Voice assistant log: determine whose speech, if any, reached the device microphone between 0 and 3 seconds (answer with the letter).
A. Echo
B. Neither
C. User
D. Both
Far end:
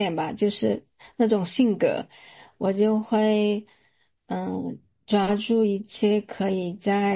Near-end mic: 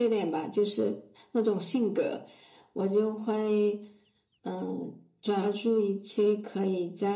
A